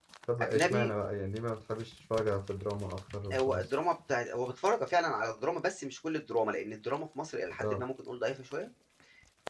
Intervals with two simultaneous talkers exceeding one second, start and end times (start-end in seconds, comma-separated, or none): none